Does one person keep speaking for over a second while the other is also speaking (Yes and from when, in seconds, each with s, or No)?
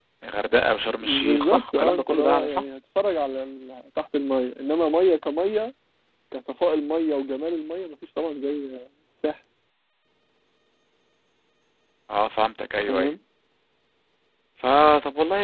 Yes, from 1.0 s